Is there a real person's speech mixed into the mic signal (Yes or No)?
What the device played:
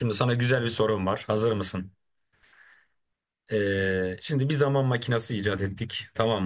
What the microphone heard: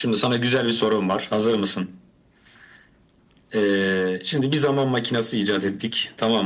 No